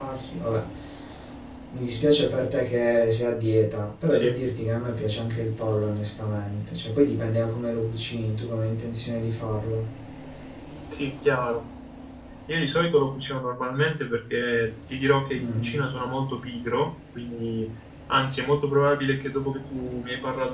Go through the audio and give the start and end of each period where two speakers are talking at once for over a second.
none

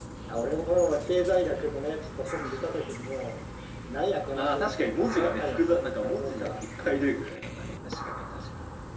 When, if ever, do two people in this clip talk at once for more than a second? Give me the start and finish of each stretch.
4.4-6.6

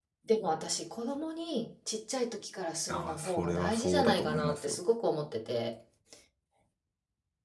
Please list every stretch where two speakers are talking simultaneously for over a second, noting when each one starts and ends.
2.9-4.8

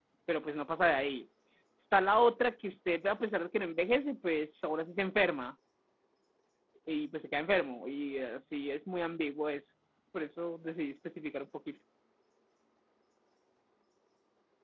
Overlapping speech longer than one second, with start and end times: none

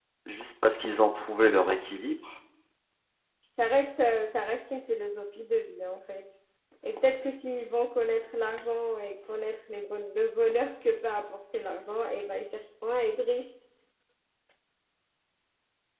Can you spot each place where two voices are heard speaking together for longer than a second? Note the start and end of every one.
none

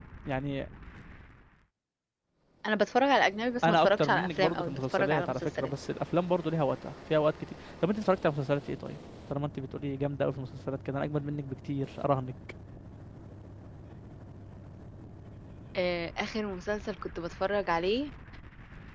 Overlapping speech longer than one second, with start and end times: 3.6-5.7

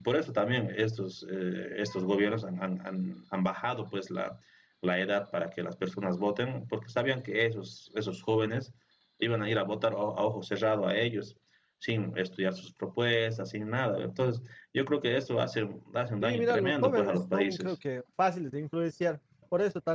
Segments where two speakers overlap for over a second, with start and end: 16.2-17.8

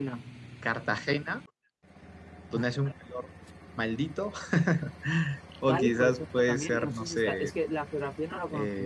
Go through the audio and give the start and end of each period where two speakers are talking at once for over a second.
5.7-7.5

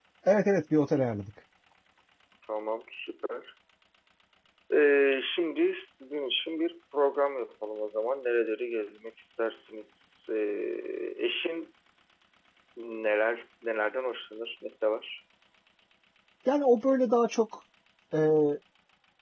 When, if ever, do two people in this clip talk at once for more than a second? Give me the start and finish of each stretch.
none

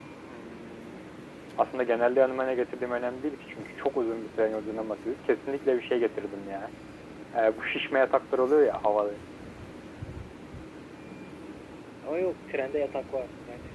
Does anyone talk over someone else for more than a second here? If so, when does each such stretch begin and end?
none

